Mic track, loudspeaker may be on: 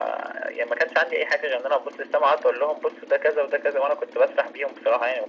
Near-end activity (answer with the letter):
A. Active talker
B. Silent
B